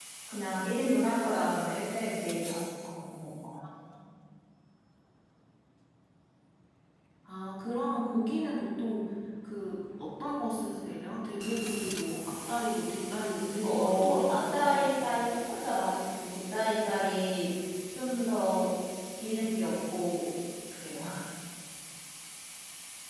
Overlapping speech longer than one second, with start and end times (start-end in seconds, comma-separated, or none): 13.6-14.9